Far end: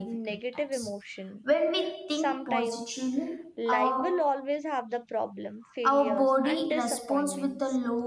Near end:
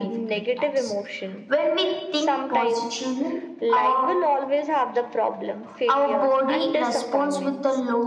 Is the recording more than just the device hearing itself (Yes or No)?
No